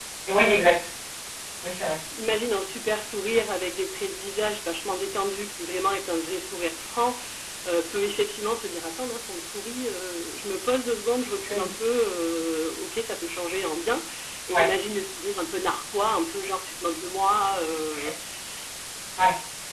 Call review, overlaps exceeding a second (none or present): none